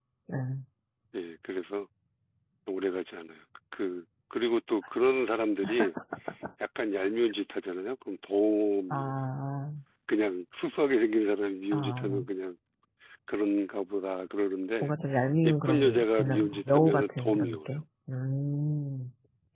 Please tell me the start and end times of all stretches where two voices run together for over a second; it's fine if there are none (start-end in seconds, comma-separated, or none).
15.4-17.8